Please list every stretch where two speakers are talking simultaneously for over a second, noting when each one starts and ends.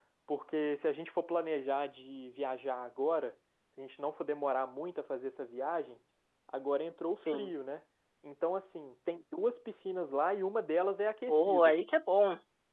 none

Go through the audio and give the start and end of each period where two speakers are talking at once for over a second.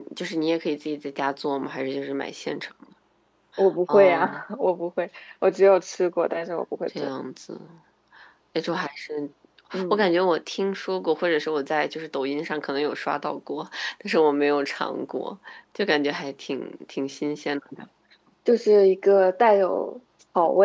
none

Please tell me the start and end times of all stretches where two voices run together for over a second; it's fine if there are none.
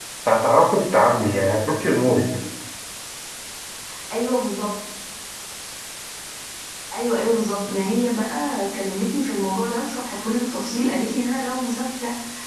none

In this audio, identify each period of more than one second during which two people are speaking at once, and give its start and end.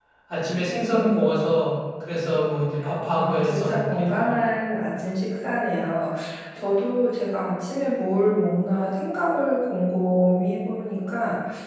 3.2-4.5

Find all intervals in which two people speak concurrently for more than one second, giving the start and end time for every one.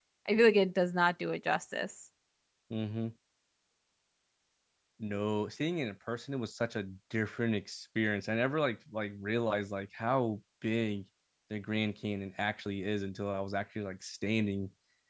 none

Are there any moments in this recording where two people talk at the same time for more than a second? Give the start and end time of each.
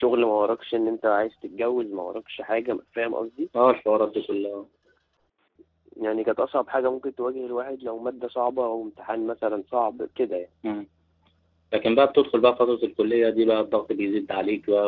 none

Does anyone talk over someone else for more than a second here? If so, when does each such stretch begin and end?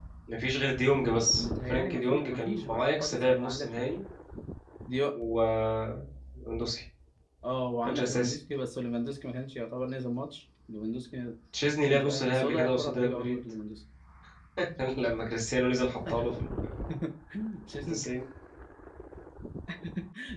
1.4-3.7, 11.9-13.4

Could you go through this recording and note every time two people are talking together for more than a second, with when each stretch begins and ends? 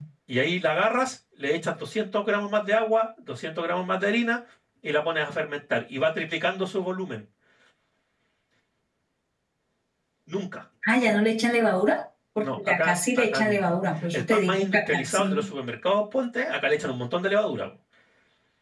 14.2-15.4

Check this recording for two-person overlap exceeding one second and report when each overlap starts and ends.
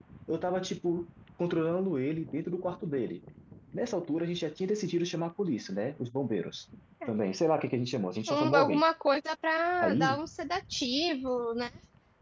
none

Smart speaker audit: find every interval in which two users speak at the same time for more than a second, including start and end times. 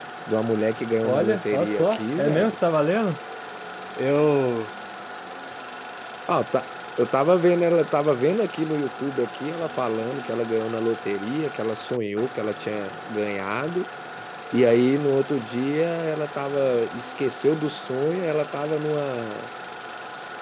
1.0-2.5

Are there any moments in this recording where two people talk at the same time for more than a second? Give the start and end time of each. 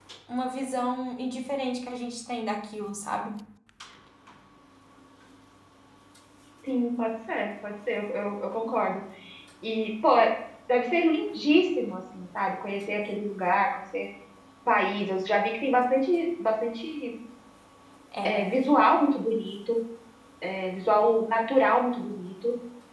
none

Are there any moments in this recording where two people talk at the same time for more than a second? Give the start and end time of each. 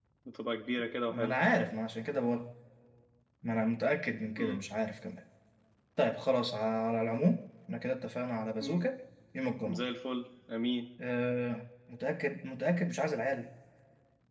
none

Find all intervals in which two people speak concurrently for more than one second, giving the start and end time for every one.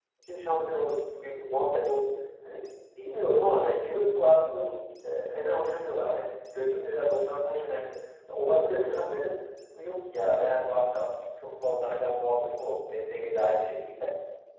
none

